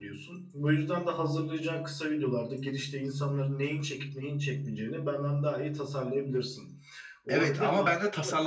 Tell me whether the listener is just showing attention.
No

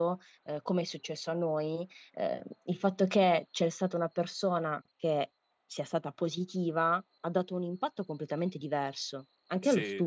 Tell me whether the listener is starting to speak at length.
Yes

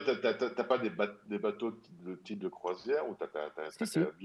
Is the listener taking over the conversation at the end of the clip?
No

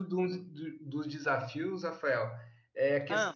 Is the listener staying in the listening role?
Yes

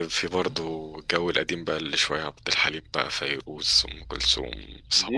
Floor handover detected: Yes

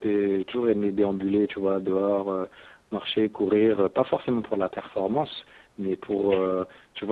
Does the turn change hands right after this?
No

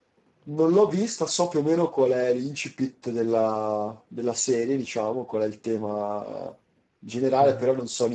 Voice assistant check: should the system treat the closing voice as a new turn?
No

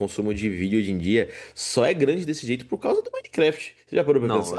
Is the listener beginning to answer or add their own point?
Yes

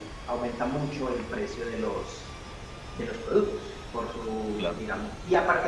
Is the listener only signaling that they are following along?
Yes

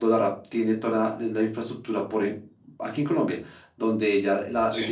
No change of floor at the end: Yes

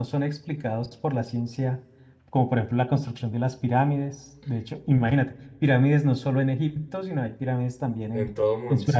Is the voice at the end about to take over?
Yes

